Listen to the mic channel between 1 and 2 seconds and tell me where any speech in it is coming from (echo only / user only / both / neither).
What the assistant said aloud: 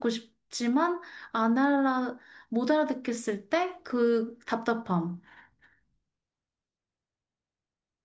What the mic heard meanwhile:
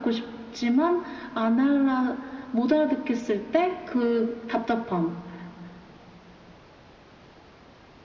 echo only